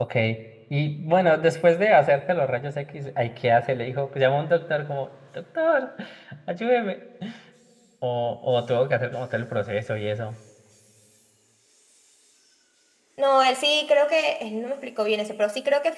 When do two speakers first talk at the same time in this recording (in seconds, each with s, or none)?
none